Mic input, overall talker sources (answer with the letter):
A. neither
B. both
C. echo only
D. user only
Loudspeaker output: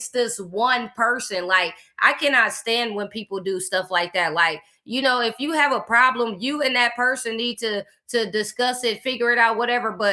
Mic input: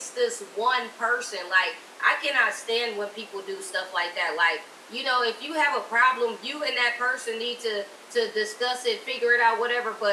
C